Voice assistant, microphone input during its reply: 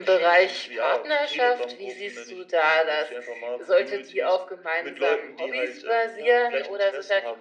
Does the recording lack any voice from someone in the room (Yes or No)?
Yes